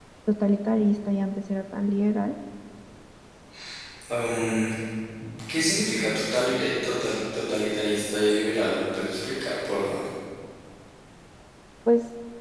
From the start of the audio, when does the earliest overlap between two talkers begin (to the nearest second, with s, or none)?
none